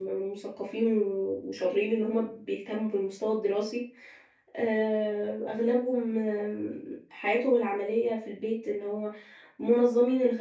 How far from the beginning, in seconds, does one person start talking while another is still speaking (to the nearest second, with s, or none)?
none